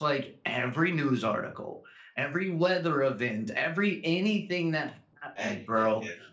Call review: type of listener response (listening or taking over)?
listening